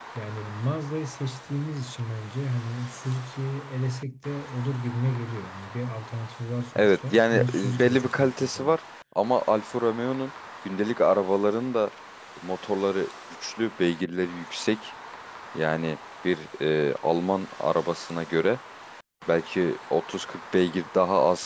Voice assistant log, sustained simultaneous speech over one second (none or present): present